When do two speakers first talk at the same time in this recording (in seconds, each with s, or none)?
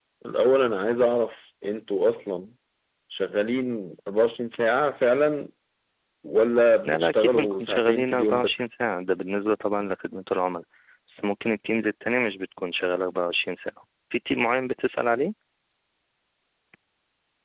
6.8 s